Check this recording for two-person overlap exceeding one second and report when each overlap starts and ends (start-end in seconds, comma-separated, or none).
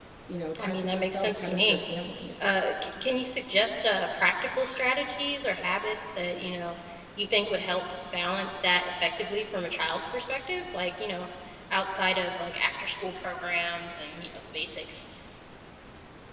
0.6-1.8